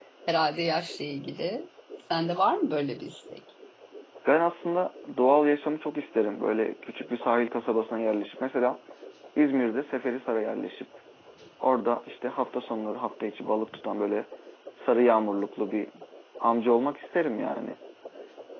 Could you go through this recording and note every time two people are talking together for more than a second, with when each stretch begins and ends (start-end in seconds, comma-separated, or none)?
none